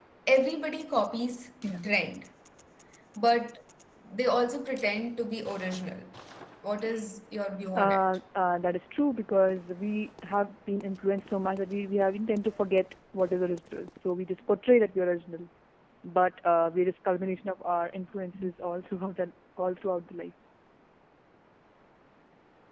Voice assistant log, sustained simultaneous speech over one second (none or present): none